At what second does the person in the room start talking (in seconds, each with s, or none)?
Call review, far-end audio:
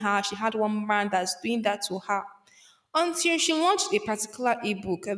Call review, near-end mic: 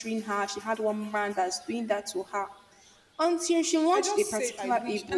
3.9 s